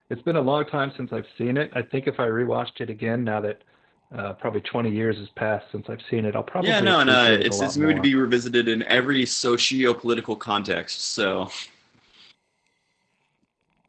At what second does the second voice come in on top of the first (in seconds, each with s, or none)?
6.6 s